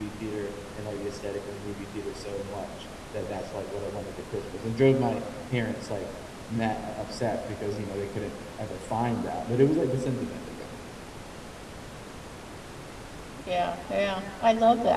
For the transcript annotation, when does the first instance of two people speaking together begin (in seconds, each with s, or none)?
none